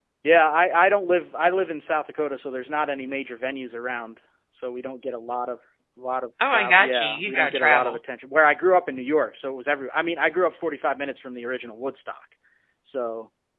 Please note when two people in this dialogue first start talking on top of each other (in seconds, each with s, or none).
6.5 s